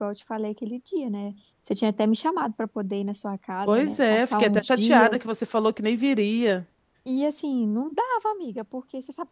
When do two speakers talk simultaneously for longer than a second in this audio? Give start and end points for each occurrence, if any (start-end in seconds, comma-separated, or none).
3.6-5.4